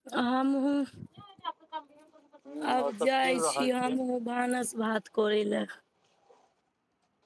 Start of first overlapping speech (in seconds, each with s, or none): 2.6 s